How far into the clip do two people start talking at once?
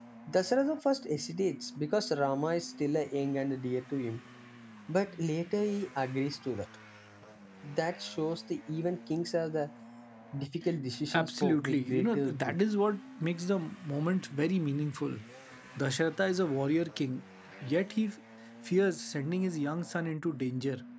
11.1 s

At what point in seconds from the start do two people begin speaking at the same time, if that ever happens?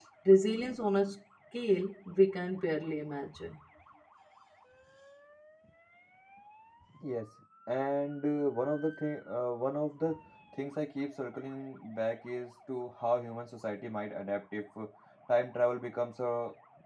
none

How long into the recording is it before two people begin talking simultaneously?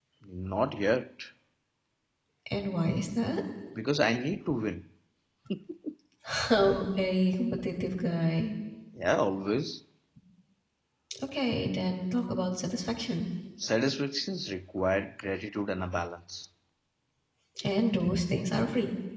none

